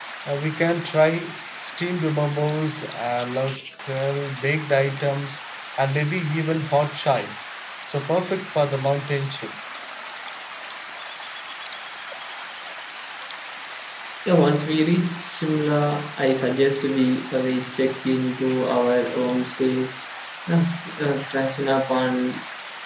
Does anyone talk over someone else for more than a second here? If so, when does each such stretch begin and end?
none

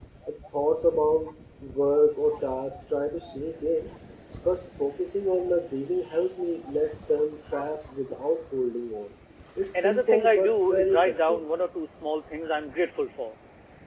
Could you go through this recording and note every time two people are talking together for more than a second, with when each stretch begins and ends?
9.7-11.4

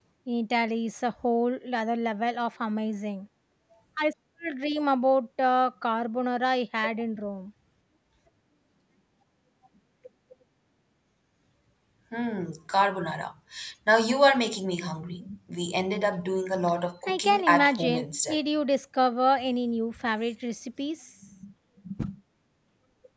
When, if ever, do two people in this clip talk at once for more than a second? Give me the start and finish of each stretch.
17.1-18.4

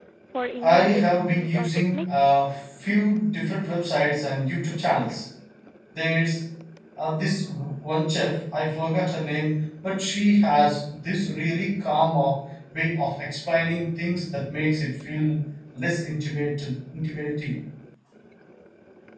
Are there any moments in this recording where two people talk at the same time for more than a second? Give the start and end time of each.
0.6-2.2

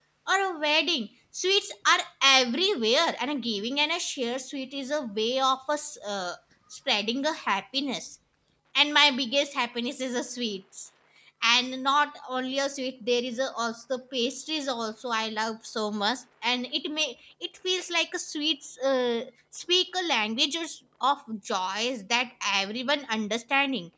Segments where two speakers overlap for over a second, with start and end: none

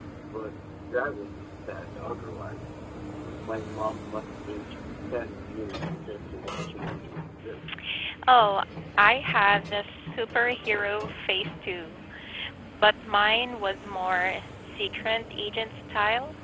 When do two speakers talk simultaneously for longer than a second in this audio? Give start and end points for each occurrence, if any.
none

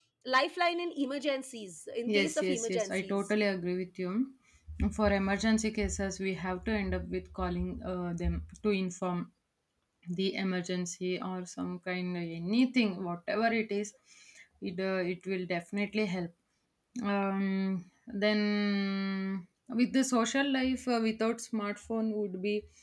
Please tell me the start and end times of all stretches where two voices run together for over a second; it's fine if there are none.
2.1-3.3

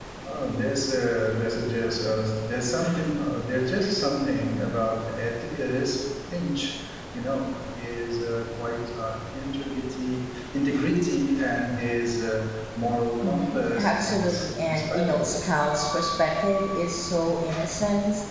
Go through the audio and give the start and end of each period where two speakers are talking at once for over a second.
13.2-15.3

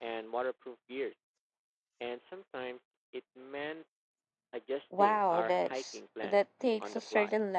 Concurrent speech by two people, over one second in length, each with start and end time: 5.0-6.4

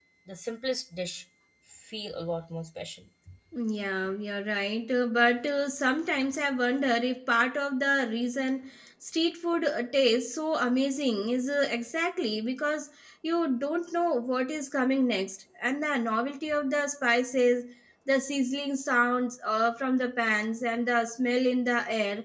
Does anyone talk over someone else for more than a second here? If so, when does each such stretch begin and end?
none

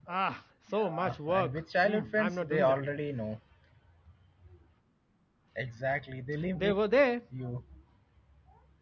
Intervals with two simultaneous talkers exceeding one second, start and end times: 0.8-2.8

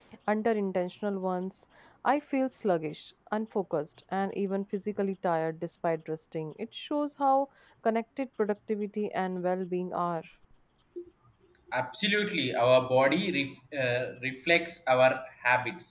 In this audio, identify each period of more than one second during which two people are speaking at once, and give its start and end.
none

